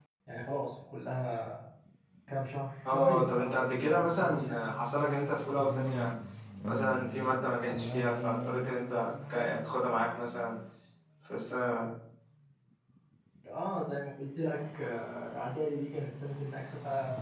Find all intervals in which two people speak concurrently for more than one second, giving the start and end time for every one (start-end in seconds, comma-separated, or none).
2.9-4.7